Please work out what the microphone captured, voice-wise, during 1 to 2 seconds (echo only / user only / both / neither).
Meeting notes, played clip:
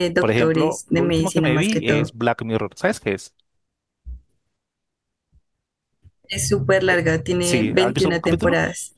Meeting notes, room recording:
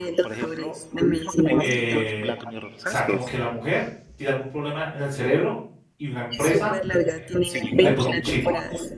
both